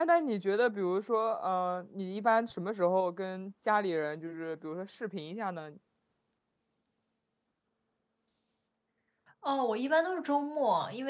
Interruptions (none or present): none